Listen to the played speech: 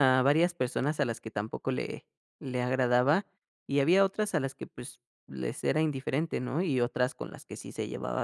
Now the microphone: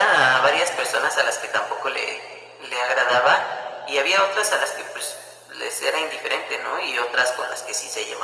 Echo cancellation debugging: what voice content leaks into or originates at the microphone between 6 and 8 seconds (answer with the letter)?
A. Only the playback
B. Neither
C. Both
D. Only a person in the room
A